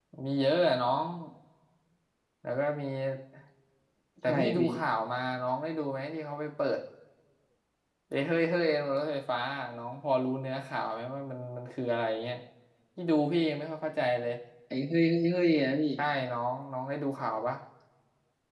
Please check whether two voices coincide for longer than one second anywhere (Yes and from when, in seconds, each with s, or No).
No